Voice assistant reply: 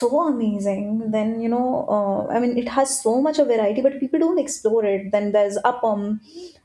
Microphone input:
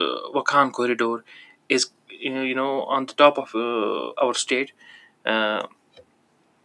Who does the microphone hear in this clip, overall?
user only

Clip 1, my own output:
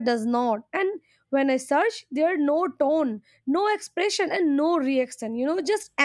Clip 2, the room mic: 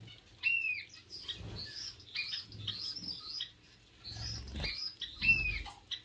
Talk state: neither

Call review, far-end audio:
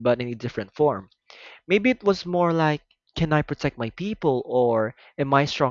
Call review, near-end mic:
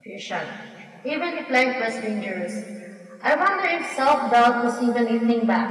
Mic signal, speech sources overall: user only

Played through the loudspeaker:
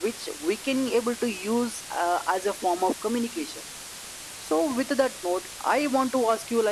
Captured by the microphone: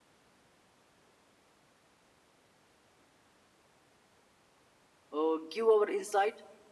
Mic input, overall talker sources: user only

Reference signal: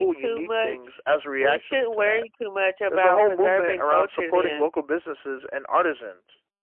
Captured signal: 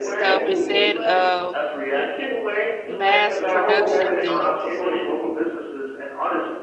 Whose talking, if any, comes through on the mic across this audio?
both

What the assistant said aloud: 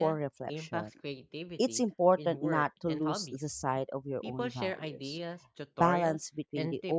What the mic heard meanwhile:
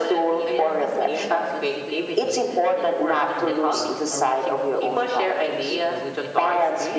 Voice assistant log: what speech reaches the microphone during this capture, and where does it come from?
both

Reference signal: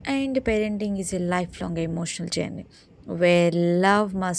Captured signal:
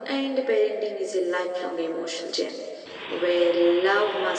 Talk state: echo only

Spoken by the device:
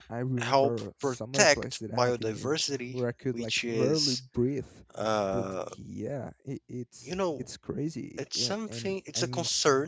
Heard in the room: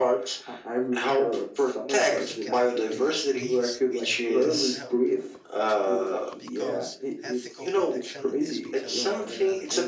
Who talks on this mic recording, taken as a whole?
both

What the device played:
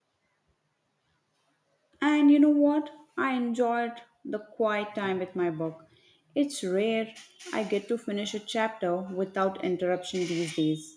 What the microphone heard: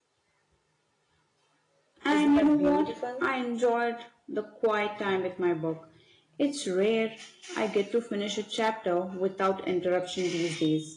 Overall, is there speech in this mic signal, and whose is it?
both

